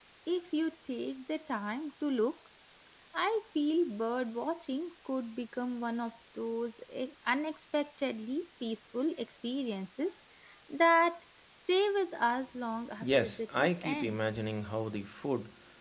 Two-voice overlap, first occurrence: 13.0 s

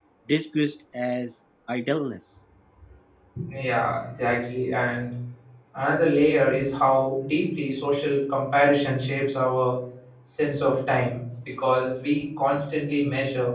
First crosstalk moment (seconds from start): none

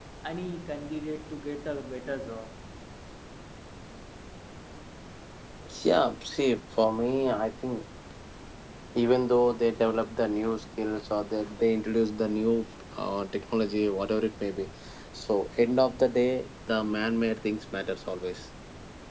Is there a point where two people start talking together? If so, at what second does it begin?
none

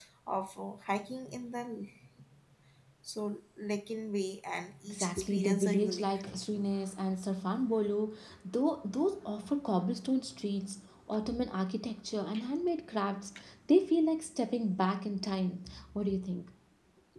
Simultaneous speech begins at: 4.8 s

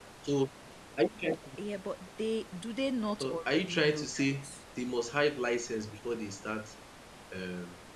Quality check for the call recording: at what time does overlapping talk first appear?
3.2 s

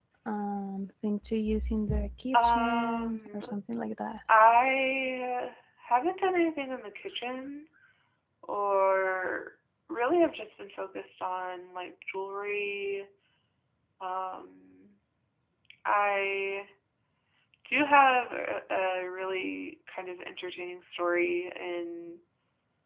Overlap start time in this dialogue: 2.3 s

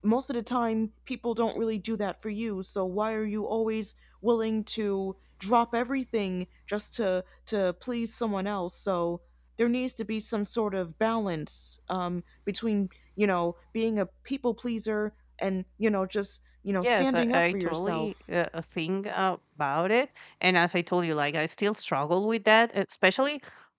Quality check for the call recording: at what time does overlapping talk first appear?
16.8 s

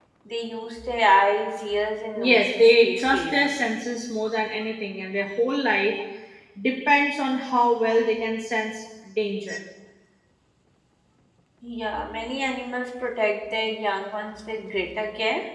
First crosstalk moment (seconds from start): 2.2 s

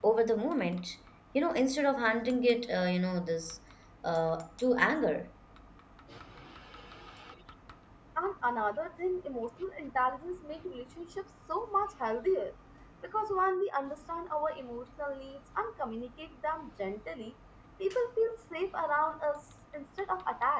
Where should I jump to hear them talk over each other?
none

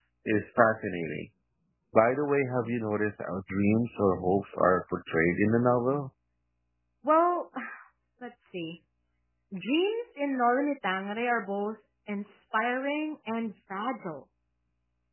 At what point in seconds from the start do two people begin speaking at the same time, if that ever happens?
none

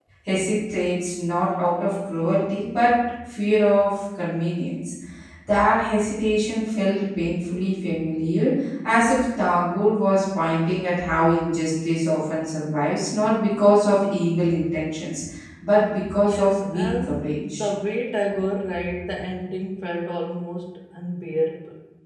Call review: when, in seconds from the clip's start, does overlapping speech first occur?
16.2 s

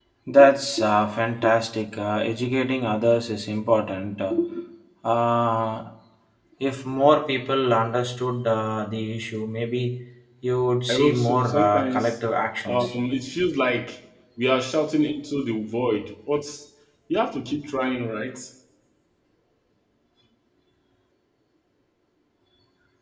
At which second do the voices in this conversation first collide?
10.9 s

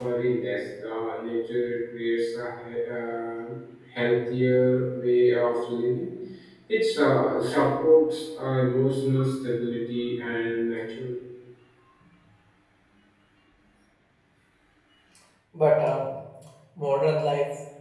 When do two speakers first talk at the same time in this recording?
none

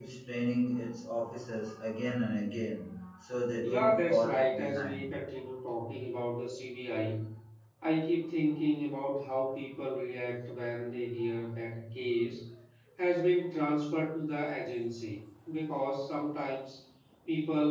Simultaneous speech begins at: 3.6 s

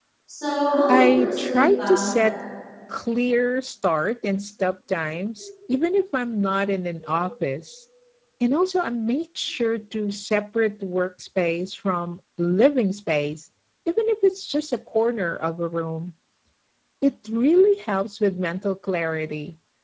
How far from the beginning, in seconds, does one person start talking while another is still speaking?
0.9 s

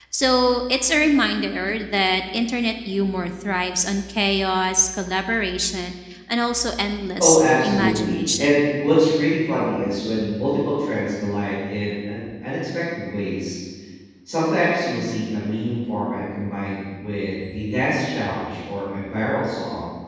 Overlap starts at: 7.2 s

